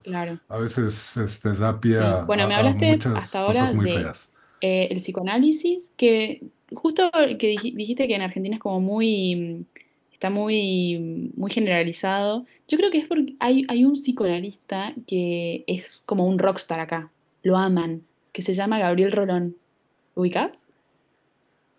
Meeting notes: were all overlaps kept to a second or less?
No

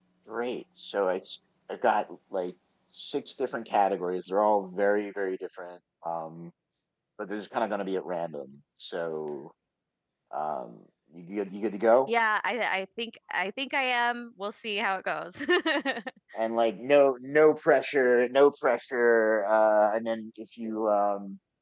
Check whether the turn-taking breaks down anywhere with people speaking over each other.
No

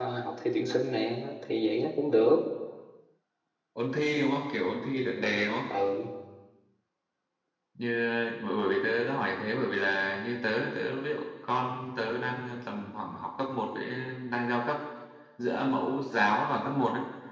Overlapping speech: No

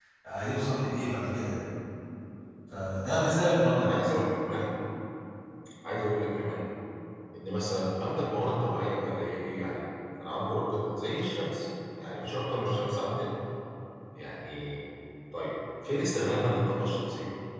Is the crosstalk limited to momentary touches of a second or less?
Yes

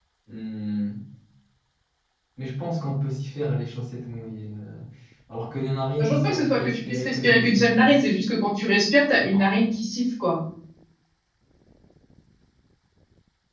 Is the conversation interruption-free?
No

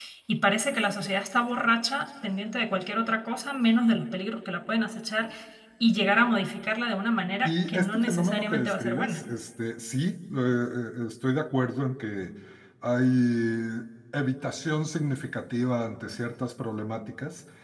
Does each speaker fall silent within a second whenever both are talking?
No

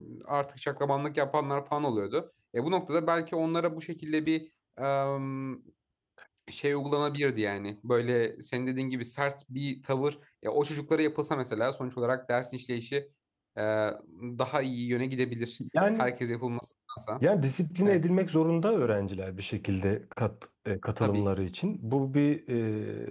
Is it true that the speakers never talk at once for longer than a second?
Yes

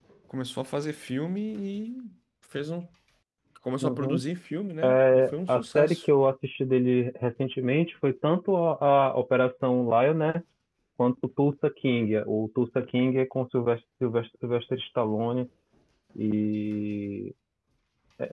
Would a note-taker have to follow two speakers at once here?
Yes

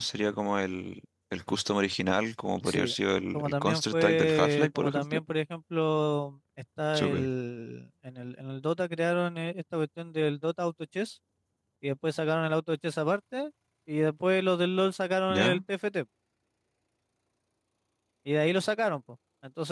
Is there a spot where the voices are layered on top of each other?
Yes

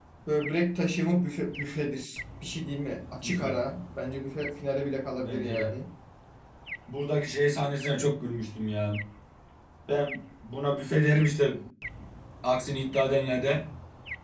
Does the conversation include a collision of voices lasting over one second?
No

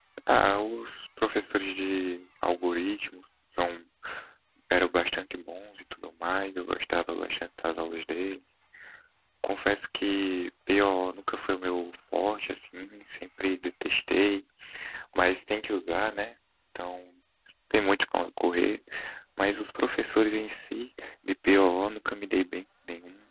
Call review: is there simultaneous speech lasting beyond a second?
No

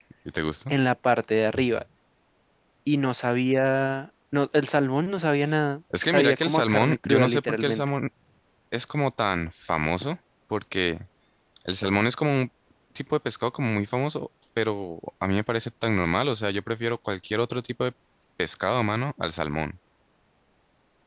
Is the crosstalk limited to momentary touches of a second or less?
No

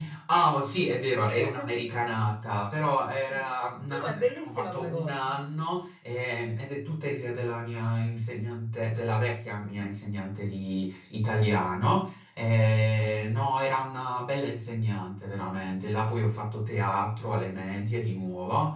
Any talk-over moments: Yes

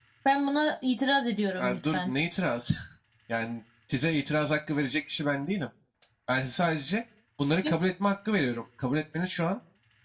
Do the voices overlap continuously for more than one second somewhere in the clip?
No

